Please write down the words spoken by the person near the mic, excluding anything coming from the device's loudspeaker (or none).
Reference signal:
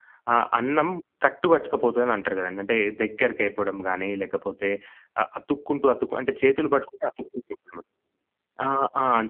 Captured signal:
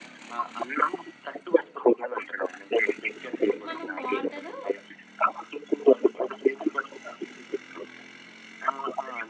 మనం వాటరు